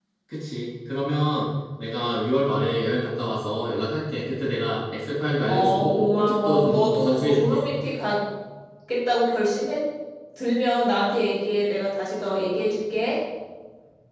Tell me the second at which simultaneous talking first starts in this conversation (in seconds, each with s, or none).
5.5 s